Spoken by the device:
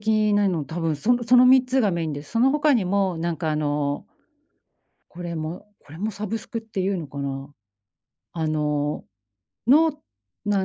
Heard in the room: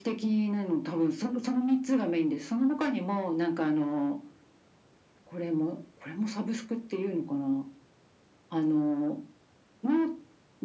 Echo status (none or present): present